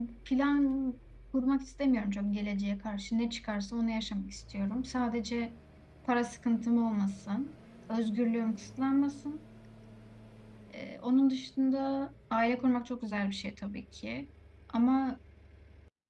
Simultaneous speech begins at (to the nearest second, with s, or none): none